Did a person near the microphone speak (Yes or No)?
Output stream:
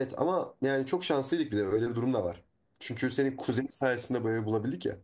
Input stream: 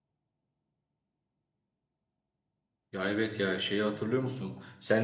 Yes